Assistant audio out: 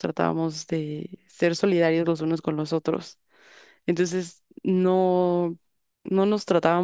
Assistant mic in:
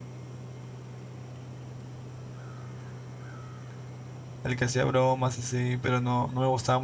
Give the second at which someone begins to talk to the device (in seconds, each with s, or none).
4.4 s